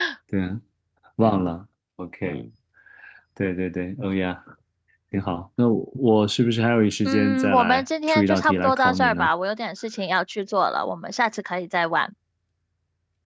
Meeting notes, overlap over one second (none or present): present